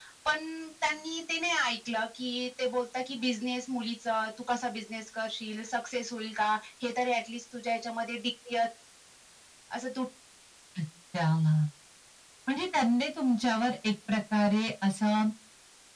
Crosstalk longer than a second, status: none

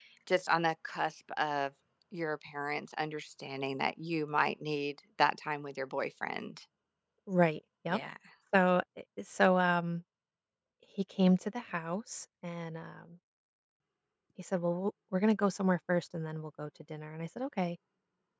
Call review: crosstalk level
none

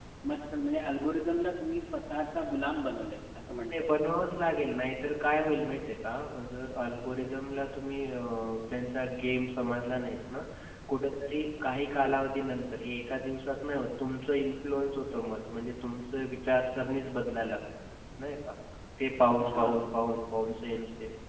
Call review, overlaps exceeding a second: none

